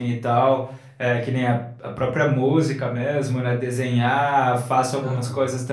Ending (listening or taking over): listening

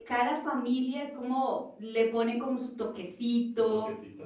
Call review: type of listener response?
listening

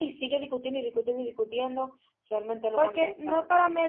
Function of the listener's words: taking over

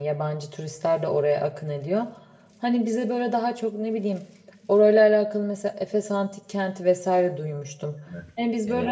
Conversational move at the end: listening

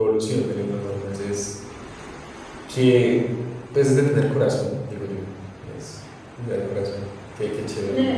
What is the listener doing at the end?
taking over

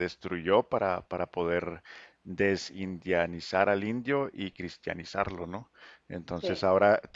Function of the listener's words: listening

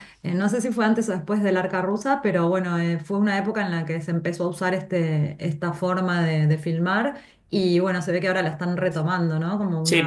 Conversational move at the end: taking over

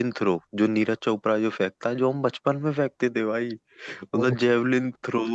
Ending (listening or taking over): listening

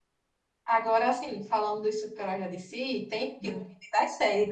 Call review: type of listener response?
listening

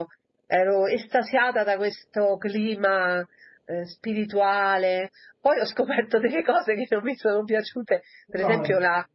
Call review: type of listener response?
listening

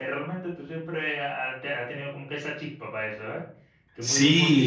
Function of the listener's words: taking over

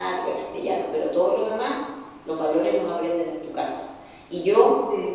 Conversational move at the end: listening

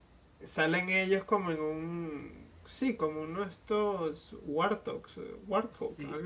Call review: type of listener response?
taking over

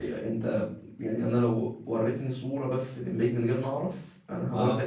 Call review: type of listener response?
listening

